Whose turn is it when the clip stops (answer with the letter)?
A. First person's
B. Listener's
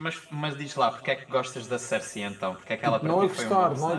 B